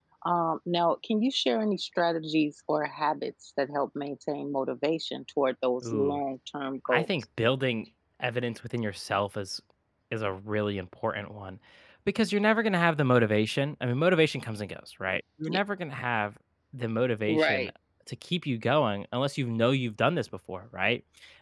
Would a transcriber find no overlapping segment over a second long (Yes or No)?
Yes